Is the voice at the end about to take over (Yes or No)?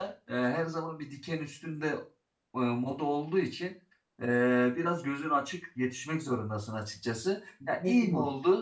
No